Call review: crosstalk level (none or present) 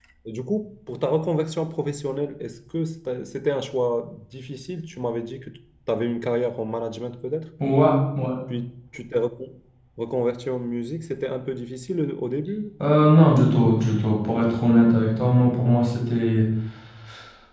none